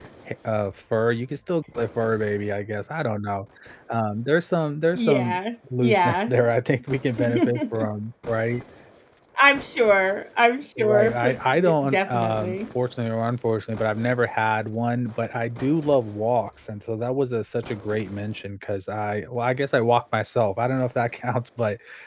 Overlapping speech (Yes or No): Yes